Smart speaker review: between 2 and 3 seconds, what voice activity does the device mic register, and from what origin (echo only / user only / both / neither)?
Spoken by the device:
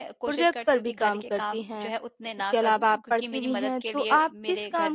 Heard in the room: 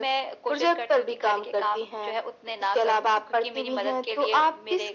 echo only